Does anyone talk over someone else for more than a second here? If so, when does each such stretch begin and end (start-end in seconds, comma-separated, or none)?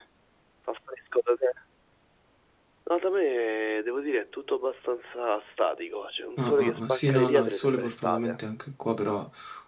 6.4-8.4